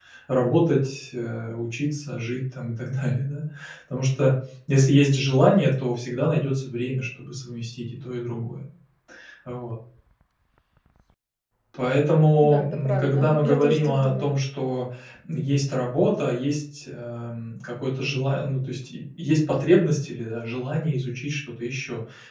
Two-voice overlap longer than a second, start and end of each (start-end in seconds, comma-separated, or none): 12.4-14.3